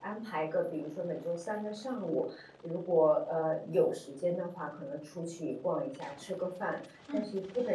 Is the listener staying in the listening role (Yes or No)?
Yes